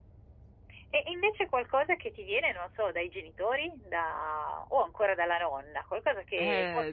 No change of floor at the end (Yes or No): No